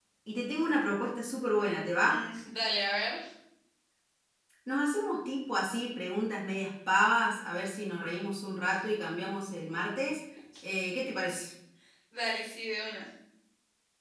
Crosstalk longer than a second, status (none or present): none